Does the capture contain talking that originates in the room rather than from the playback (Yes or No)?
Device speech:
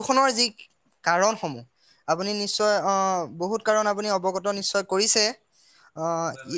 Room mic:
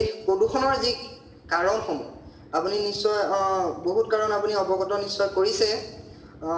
No